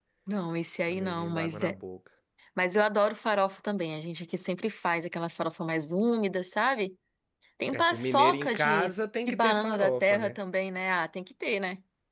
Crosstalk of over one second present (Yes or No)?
Yes